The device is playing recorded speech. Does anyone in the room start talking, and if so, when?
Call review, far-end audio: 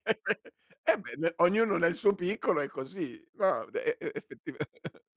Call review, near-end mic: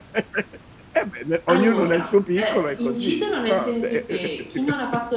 1.5 s

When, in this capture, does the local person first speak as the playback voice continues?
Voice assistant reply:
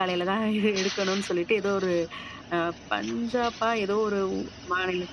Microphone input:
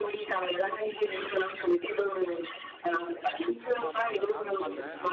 3.6 s

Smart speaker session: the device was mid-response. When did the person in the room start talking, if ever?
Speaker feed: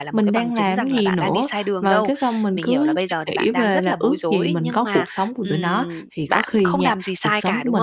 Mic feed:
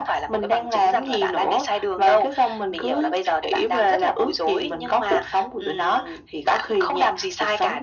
none

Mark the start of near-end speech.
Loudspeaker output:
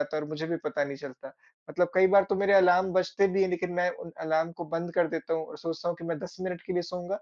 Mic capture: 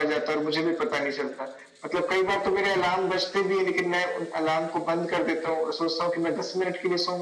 none

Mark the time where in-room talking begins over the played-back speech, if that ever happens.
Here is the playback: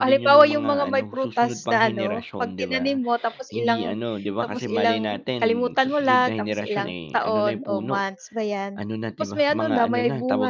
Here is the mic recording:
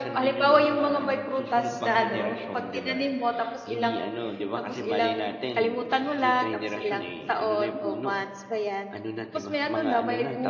none

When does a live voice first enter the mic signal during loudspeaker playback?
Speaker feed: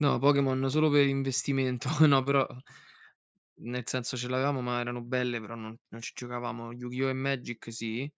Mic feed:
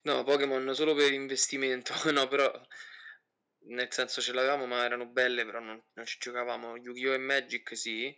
none

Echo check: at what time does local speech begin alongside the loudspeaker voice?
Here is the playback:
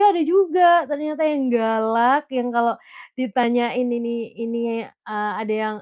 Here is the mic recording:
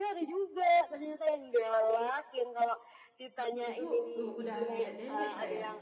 3.7 s

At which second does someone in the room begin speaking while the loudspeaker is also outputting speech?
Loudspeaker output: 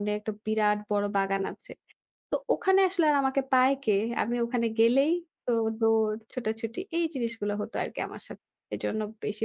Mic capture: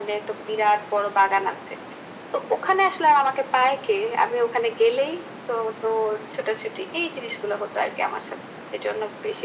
none

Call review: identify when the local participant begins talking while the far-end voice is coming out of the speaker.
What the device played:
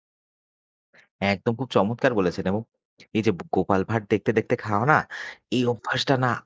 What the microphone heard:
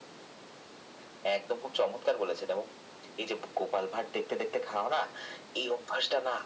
none

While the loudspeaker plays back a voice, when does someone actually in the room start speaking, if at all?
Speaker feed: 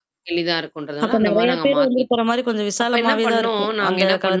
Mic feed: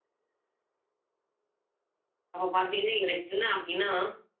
2.3 s

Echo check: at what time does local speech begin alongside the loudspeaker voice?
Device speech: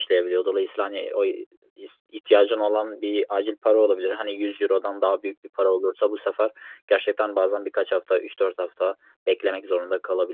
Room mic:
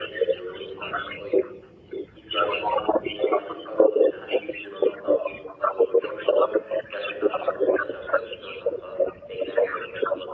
none

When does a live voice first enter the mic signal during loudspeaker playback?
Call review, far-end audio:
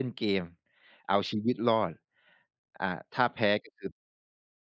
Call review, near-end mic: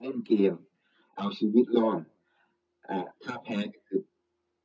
none

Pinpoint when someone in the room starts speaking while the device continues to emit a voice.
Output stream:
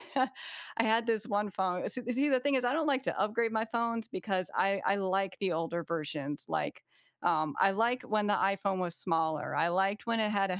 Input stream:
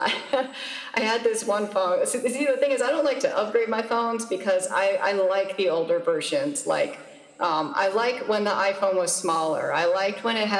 none

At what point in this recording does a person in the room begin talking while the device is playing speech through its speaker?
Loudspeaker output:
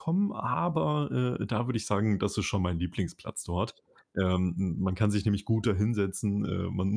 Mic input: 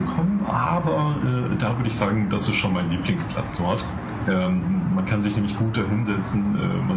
none

